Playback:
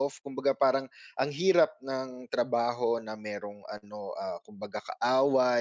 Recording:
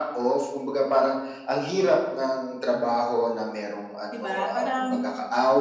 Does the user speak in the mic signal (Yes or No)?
Yes